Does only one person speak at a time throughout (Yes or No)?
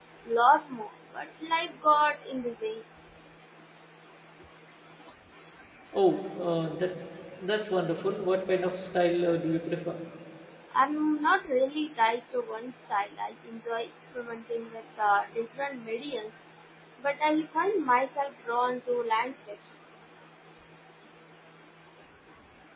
Yes